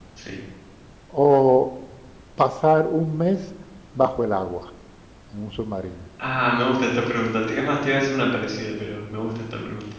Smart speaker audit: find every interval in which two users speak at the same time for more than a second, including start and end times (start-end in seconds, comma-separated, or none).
none